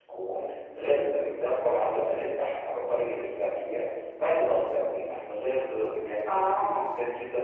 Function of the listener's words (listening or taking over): listening